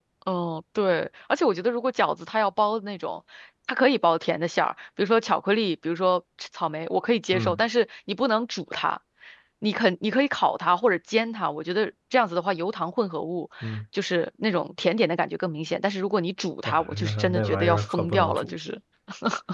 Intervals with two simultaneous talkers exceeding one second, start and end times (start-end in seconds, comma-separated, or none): 16.6-18.5